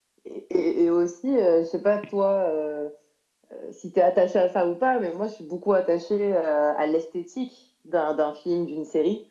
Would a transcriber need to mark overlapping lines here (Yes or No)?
No